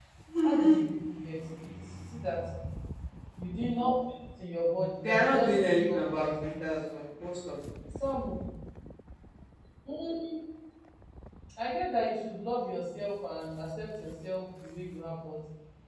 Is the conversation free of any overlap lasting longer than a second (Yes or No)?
No